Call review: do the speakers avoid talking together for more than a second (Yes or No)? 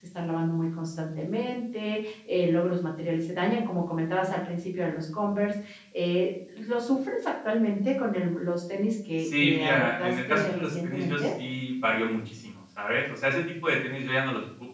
No